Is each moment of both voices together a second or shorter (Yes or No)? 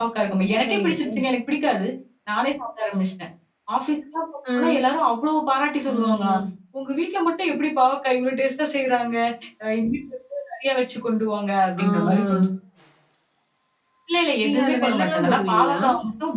No